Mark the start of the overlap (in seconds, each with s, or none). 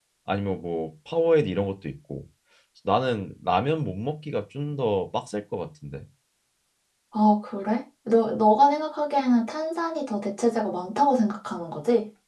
none